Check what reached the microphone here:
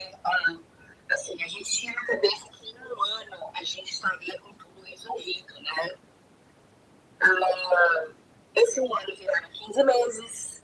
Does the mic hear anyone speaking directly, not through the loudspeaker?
No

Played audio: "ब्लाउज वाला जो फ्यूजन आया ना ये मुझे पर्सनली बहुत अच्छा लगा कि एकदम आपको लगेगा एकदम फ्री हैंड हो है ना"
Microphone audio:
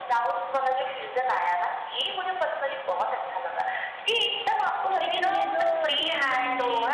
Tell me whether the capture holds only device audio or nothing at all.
No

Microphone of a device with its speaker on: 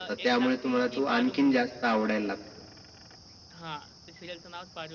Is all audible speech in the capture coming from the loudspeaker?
No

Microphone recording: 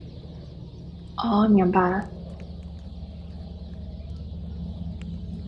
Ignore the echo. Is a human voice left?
Yes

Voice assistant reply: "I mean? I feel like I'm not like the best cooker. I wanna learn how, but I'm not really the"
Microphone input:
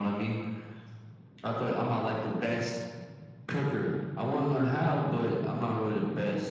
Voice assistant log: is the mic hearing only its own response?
Yes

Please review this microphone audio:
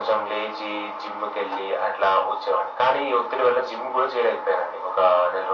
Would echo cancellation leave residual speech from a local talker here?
No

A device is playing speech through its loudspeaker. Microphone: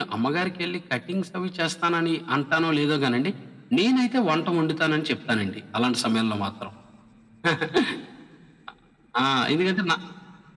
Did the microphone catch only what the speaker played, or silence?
Yes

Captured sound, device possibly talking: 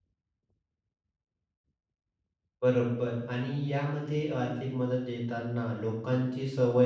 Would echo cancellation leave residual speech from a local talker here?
Yes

